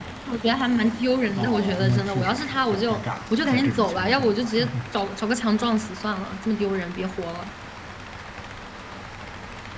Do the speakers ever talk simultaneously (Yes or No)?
Yes